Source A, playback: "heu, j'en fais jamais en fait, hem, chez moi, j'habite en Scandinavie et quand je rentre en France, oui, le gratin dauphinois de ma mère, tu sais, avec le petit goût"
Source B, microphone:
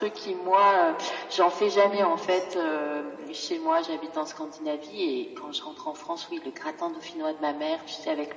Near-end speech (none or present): present